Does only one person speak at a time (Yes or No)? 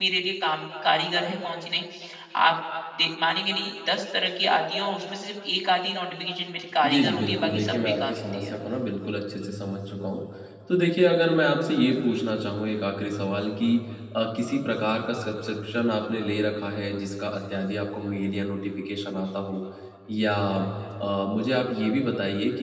No